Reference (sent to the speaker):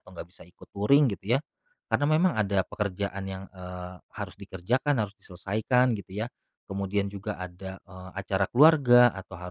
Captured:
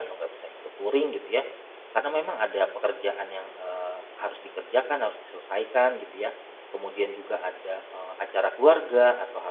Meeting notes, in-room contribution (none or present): none